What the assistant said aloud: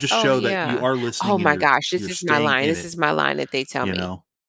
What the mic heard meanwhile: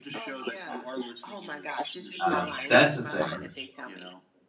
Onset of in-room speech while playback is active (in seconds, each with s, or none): 2.2 s